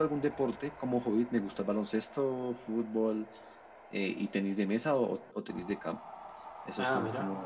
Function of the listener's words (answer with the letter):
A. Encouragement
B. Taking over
A